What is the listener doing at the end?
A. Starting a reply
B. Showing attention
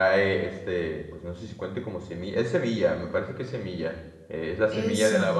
B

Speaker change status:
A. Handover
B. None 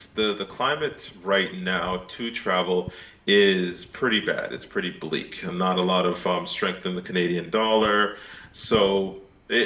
B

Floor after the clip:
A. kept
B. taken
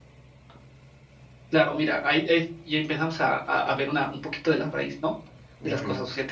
A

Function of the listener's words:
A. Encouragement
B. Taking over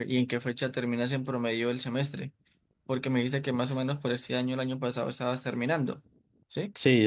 B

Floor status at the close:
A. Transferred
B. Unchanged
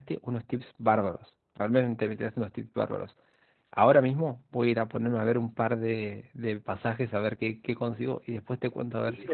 A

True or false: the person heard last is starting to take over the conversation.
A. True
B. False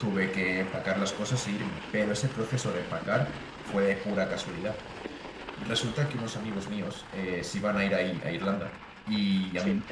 B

